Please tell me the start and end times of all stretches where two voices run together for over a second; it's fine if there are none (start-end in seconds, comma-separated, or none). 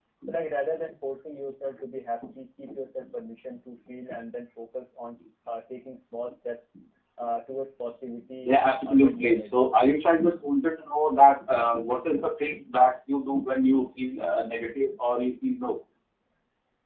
8.4-9.6